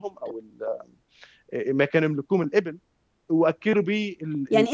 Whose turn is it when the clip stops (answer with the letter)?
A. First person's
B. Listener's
B